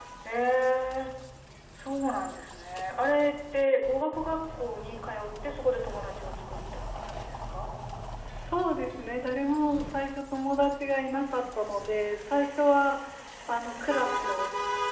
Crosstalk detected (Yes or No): No